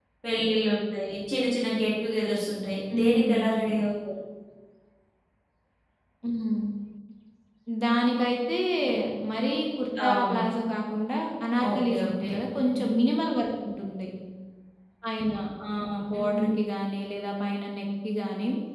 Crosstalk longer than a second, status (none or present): present